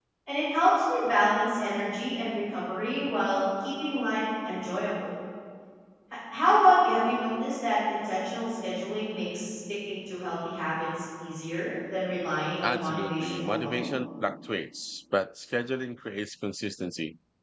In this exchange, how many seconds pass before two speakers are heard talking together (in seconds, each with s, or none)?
12.6 s